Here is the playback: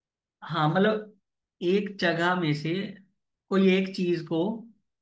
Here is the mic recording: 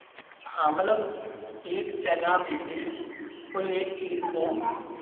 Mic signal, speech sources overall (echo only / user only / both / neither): both